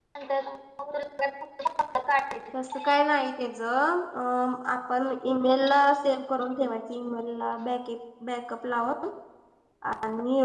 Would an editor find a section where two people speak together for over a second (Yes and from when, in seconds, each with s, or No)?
No